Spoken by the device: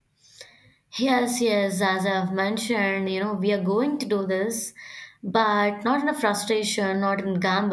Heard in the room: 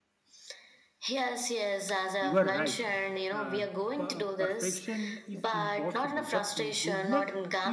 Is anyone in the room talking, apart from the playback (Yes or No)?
Yes